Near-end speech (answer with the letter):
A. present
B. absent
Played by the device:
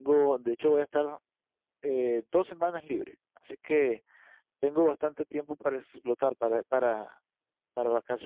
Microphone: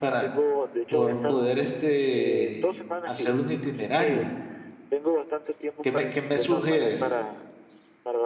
A